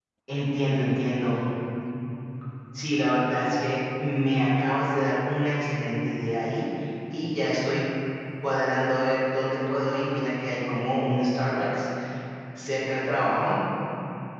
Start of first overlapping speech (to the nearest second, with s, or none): none